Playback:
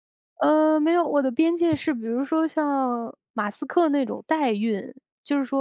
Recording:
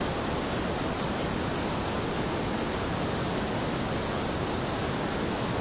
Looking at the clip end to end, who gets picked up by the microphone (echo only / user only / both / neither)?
neither